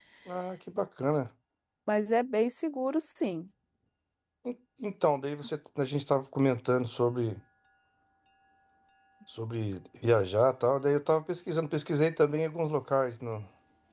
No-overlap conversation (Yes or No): Yes